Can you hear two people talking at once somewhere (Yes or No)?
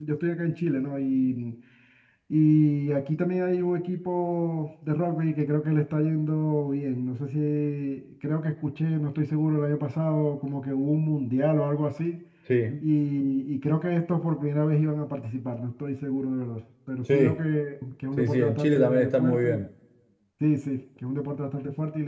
Yes